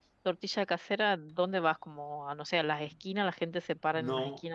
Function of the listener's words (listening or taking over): taking over